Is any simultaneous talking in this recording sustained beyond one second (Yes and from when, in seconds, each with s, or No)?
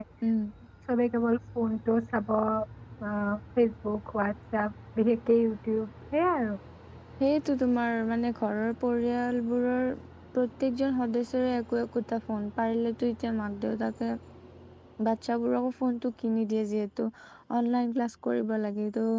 No